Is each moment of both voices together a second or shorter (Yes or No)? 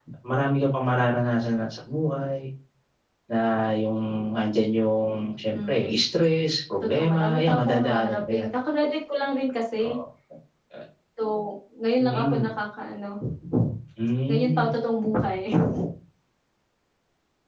No